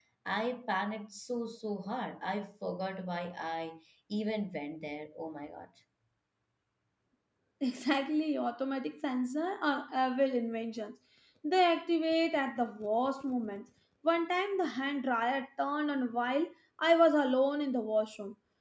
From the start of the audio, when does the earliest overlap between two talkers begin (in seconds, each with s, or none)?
none